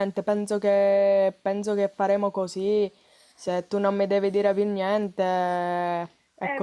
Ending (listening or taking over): taking over